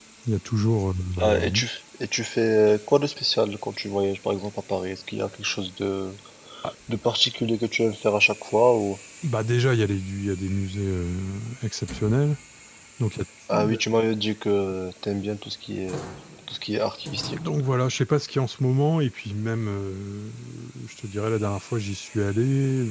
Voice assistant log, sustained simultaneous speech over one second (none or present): none